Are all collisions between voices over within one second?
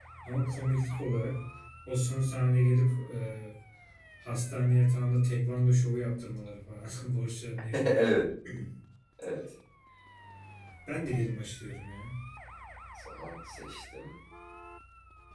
Yes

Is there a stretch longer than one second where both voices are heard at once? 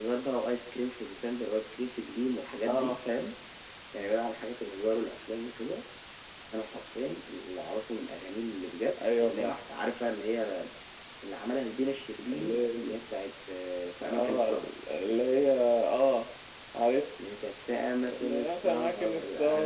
Yes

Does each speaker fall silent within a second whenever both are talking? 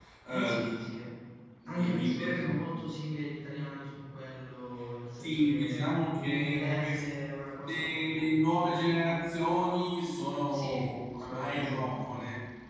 No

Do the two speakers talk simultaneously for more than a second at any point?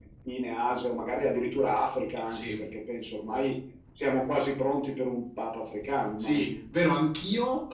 No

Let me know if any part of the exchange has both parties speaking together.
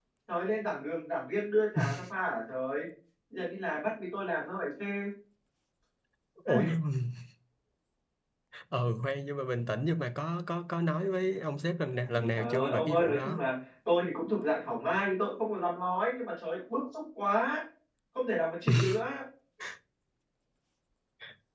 Yes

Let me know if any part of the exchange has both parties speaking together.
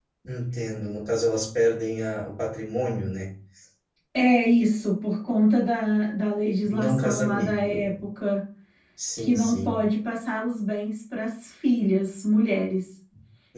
Yes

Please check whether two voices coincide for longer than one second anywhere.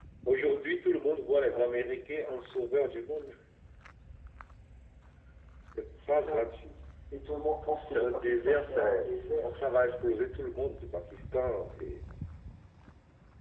Yes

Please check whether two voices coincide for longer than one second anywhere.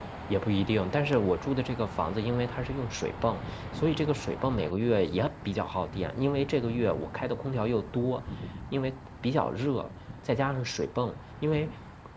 No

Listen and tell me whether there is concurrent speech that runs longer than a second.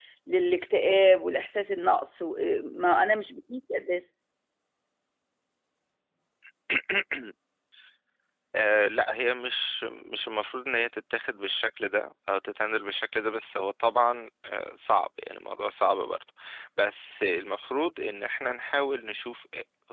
No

